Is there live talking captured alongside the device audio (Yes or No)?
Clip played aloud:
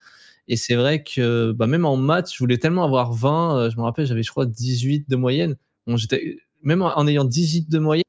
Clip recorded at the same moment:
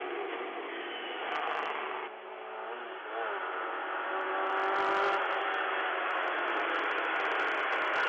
No